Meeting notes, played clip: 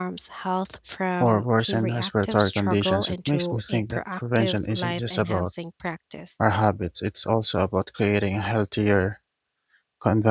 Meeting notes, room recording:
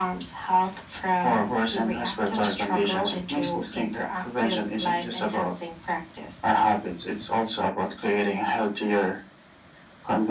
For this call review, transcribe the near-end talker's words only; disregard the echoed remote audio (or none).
none